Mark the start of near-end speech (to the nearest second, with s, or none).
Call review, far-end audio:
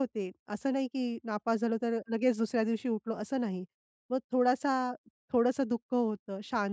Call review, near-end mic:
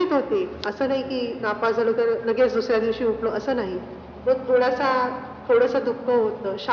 none